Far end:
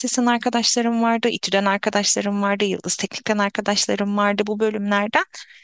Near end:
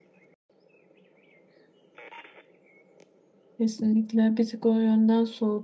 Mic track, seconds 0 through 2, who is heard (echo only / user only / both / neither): neither